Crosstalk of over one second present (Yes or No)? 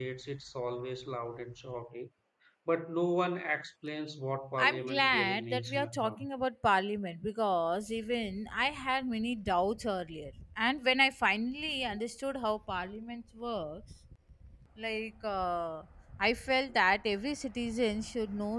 Yes